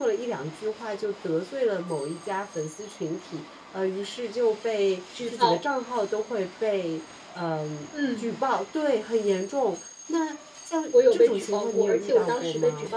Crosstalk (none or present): present